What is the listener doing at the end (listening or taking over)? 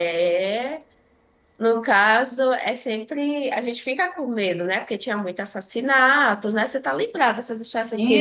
taking over